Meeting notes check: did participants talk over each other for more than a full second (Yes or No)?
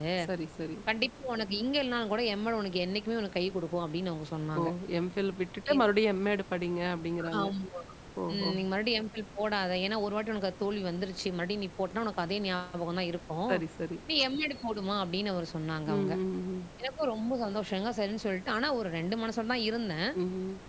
No